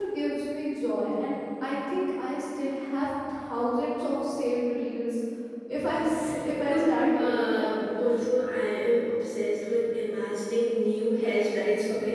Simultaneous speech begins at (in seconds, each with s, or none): 6.7 s